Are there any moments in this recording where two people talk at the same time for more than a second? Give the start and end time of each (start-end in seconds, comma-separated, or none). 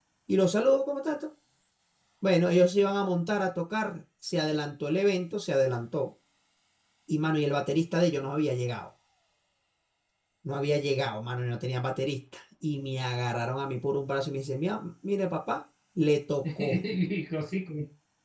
none